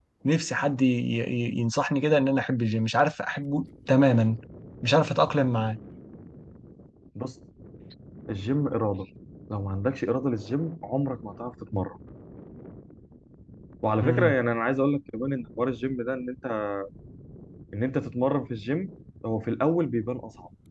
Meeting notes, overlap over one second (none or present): none